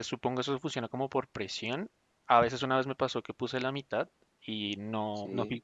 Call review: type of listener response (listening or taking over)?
listening